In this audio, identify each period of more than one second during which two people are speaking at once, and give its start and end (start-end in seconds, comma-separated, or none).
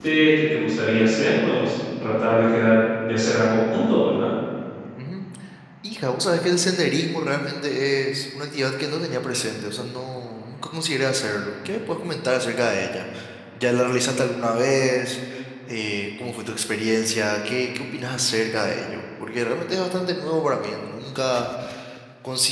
none